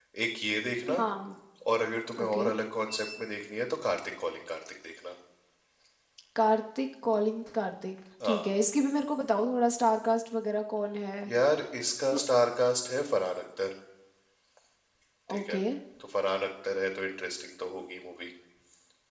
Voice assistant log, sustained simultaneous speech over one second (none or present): none